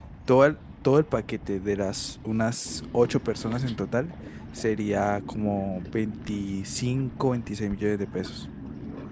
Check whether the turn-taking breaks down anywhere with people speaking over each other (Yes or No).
No